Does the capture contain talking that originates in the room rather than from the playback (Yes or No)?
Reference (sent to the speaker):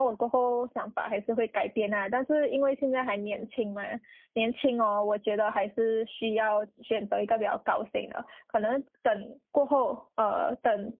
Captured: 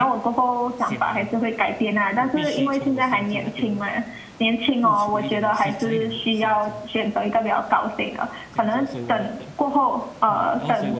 Yes